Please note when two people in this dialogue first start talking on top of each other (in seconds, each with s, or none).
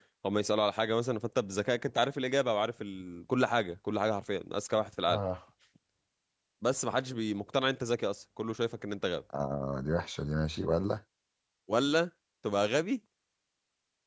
none